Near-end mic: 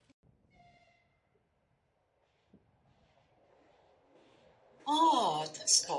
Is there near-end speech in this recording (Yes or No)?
Yes